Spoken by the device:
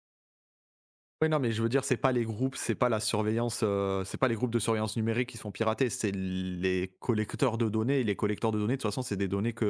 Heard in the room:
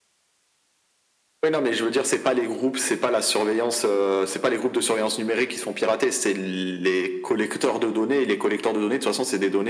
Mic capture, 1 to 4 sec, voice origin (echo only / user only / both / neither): echo only